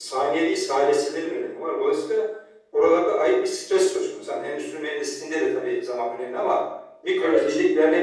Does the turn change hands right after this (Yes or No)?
No